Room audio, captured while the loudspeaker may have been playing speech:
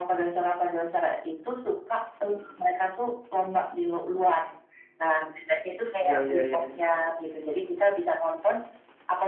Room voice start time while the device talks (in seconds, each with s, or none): 6.0 s